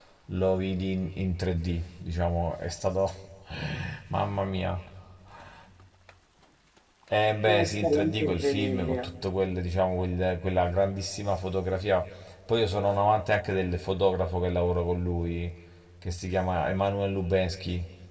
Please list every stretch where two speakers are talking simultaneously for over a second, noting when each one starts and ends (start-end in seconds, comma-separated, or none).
7.5-9.1